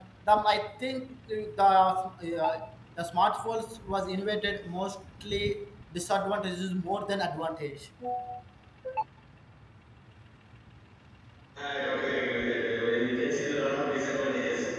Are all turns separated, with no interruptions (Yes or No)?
Yes